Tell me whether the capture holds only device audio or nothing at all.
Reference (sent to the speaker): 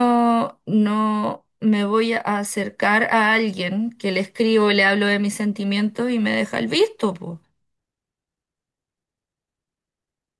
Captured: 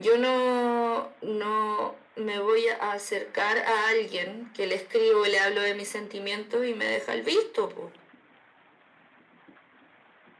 Yes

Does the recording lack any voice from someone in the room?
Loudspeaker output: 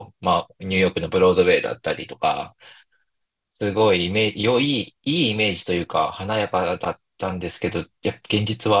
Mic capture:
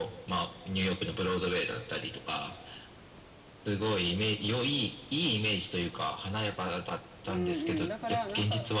No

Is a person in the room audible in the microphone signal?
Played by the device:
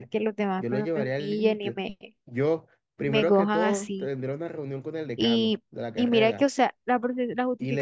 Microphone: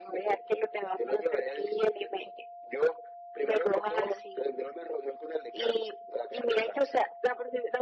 No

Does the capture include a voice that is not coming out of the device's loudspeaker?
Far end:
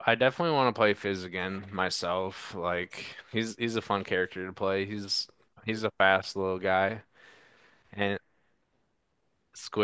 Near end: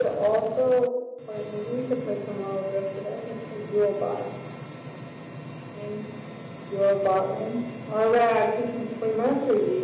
Yes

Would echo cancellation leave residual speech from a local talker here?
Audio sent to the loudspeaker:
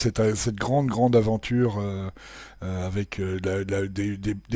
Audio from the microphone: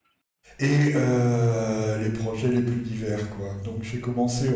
Yes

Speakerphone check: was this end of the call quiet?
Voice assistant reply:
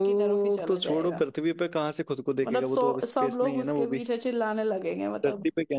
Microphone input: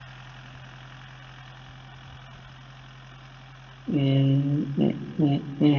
No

